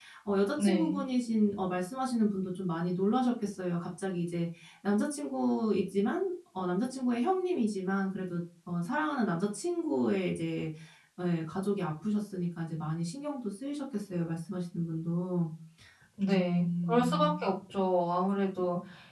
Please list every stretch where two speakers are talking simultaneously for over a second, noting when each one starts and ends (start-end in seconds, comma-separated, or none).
16.2-17.5